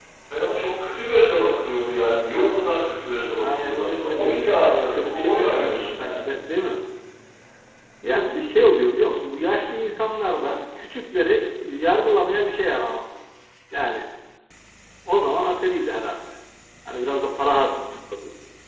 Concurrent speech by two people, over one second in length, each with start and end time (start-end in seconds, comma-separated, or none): 3.4-6.2